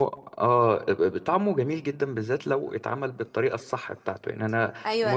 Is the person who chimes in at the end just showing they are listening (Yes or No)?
No